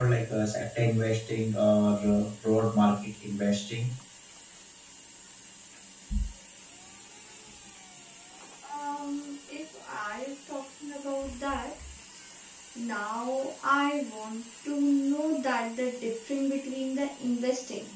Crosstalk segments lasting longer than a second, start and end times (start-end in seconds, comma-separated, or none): none